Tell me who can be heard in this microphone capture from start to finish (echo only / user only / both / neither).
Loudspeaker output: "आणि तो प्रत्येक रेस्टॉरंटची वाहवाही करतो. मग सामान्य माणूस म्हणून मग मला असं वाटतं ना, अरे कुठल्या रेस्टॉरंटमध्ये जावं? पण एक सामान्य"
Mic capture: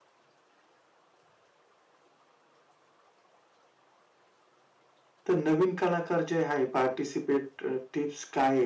user only